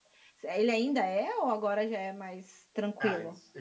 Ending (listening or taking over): taking over